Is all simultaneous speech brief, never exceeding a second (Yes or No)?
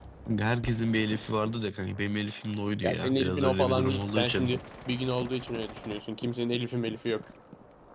No